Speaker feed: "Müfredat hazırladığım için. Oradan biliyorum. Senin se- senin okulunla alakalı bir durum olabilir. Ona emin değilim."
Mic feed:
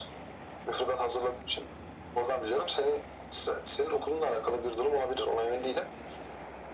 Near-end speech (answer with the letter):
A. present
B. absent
B